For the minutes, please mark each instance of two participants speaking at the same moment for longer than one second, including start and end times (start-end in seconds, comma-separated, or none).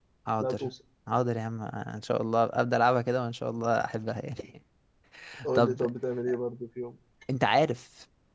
none